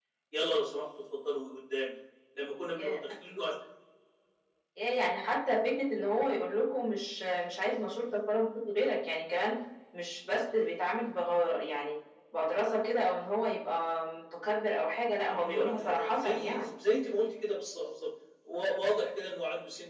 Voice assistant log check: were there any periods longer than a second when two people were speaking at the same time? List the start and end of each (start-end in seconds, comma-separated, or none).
15.2-16.7